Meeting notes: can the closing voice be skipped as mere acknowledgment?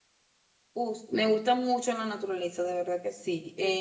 Yes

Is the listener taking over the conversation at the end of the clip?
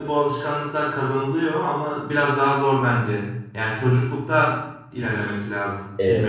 Yes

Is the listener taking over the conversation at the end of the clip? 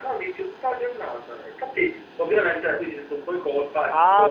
Yes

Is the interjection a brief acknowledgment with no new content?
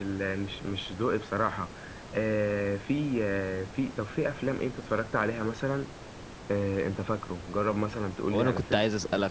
No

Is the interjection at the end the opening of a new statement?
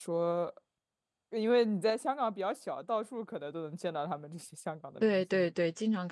Yes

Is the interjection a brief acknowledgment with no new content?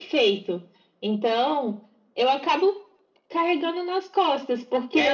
Yes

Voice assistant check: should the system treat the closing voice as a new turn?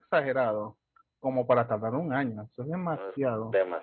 Yes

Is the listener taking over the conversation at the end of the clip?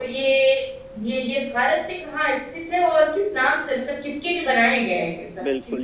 Yes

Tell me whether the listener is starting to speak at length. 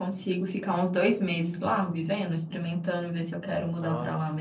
Yes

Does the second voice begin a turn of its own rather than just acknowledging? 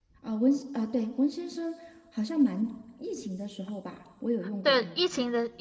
Yes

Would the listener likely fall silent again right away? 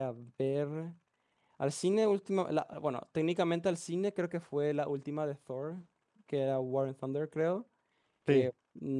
Yes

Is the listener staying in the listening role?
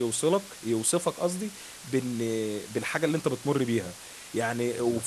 Yes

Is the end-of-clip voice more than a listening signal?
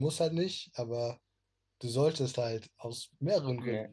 No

